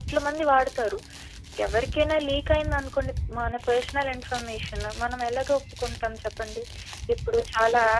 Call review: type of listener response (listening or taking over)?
listening